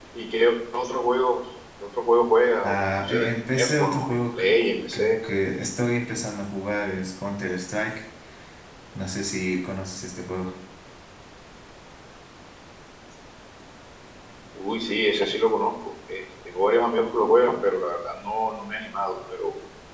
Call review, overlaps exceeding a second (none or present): present